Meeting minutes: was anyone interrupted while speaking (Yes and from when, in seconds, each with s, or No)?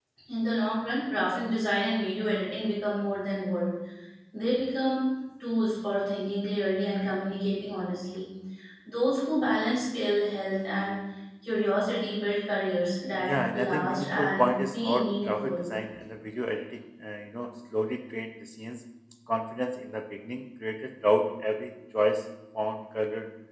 Yes, from 13.2 s